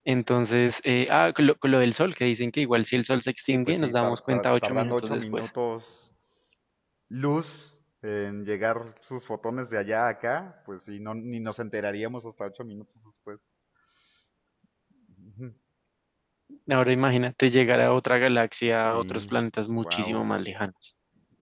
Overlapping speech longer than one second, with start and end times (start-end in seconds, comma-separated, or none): 3.5-5.5